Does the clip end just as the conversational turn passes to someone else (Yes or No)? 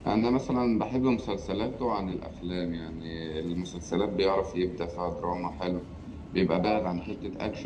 No